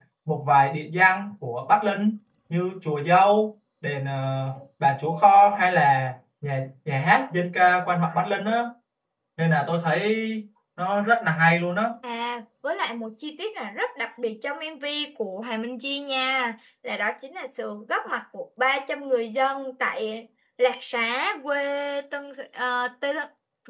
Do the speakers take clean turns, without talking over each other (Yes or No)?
Yes